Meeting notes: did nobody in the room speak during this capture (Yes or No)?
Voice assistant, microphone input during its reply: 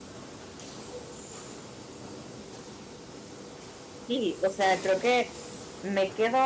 No